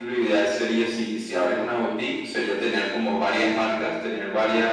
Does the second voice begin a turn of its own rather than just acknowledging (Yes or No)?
No